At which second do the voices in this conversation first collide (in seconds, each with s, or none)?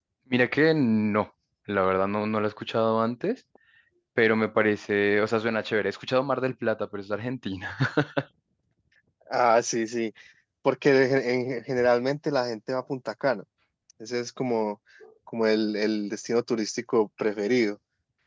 none